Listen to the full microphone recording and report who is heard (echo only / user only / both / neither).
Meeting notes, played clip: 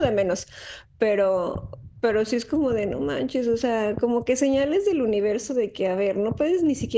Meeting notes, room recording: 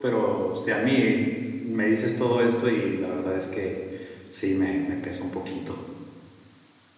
user only